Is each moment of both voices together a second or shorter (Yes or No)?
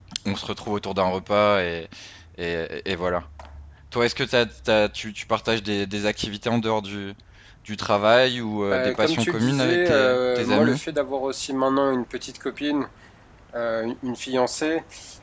No